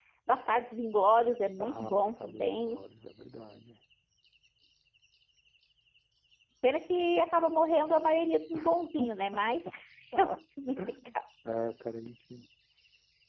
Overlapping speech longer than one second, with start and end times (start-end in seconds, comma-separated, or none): 1.6-2.8